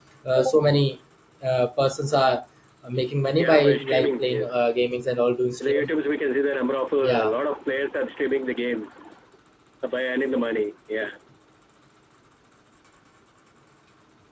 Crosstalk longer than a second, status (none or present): present